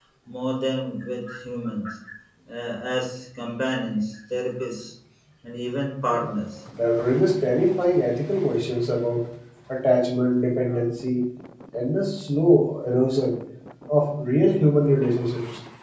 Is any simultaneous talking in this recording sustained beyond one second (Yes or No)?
No